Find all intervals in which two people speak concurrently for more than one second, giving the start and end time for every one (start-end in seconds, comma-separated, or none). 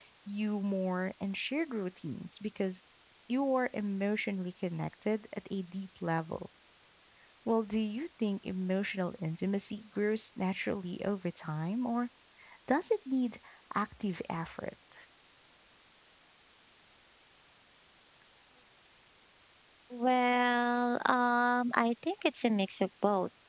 none